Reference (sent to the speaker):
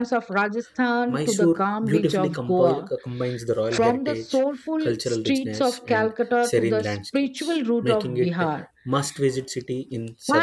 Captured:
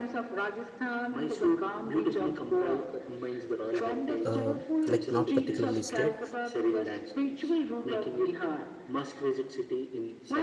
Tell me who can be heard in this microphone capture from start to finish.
both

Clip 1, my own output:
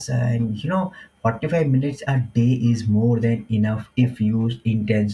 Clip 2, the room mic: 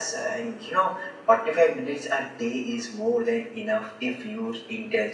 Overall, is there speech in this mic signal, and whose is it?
echo only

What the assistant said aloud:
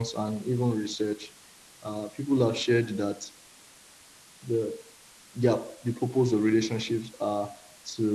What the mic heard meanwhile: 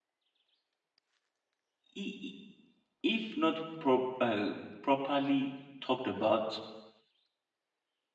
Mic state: user only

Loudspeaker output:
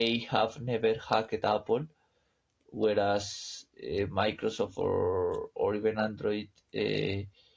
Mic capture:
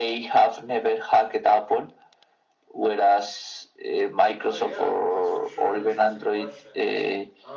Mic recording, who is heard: both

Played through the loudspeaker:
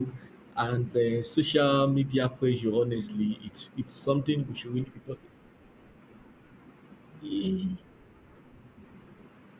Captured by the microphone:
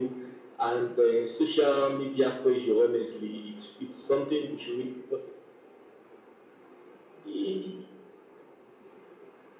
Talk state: echo only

